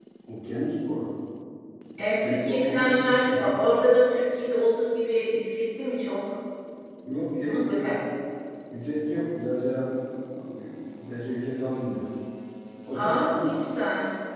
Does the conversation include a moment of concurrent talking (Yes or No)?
Yes